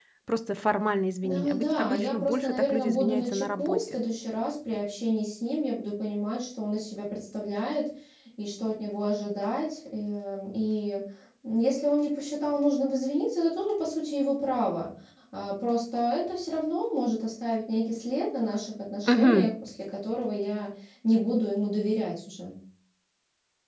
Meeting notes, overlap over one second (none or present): present